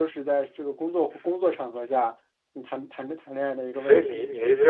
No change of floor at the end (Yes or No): No